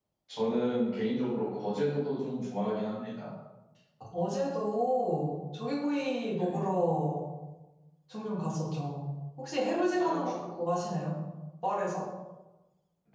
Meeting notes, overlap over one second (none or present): none